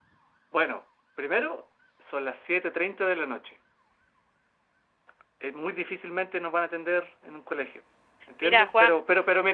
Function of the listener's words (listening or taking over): listening